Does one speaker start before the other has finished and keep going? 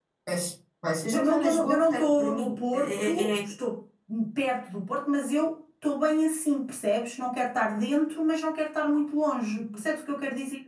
Yes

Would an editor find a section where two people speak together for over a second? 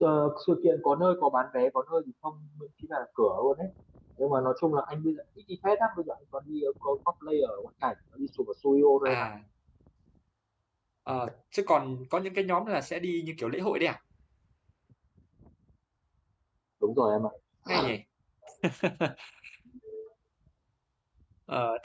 No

